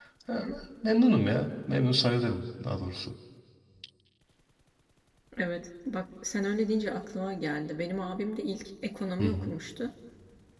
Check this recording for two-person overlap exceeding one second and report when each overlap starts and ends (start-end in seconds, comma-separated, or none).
none